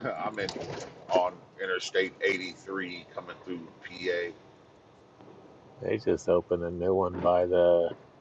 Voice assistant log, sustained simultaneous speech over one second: none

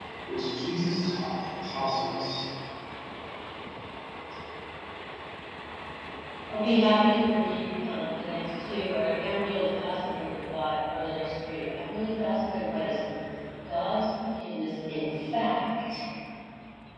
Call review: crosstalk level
none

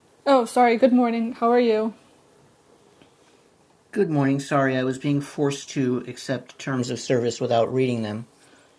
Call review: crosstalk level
none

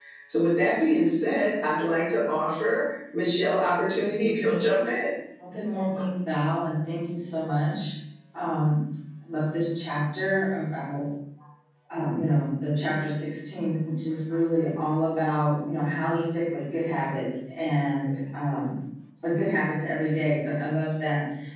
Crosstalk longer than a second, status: none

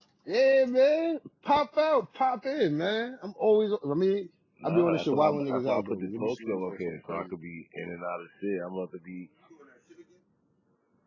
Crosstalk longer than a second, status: present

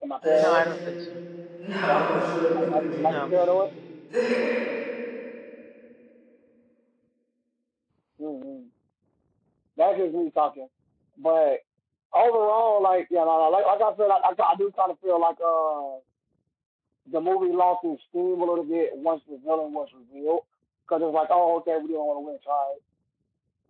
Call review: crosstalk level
present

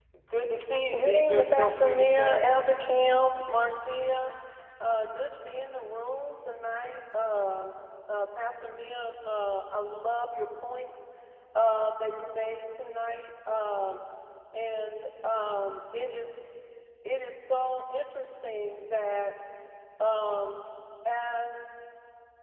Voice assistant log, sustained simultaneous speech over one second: present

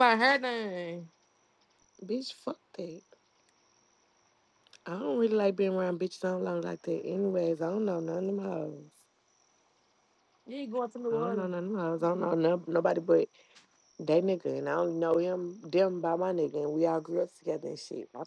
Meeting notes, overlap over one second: none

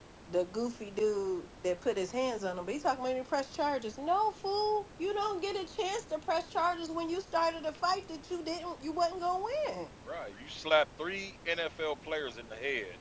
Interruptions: none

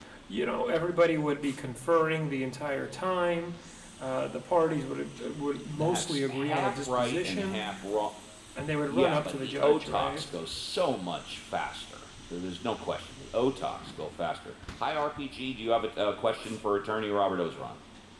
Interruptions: present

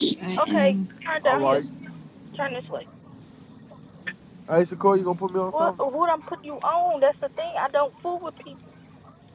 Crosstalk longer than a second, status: none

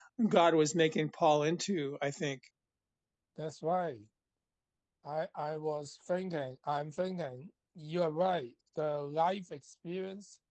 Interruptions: none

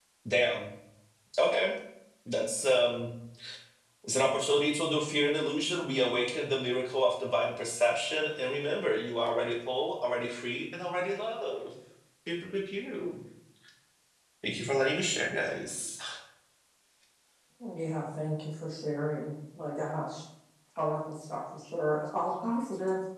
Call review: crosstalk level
none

